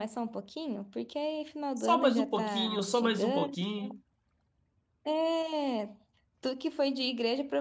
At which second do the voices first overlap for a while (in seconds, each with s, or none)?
1.8 s